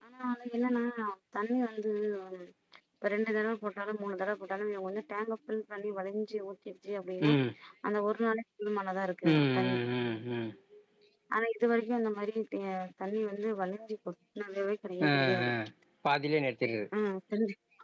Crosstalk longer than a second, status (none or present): none